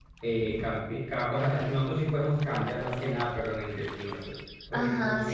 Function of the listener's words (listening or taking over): taking over